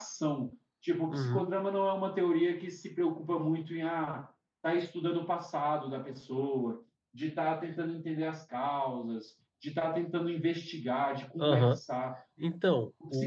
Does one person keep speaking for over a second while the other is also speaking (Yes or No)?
No